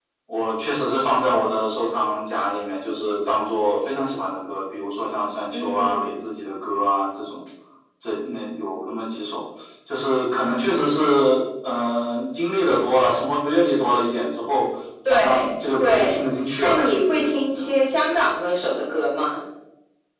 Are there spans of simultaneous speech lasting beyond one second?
Yes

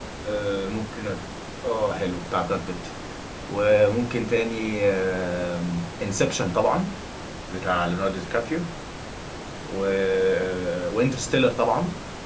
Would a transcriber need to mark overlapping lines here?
No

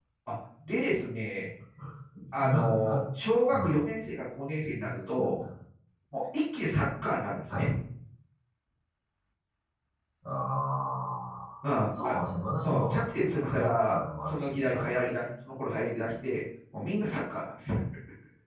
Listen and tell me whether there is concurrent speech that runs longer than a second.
Yes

